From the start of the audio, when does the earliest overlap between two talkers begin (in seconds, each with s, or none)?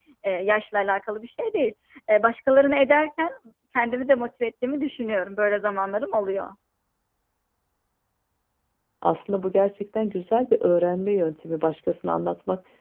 none